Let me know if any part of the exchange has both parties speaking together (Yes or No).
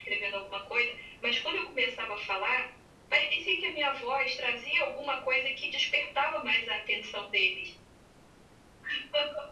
No